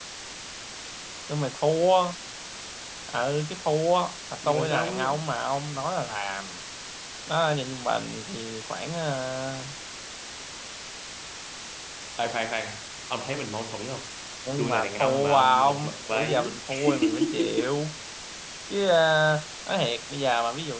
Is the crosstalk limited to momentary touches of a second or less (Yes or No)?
No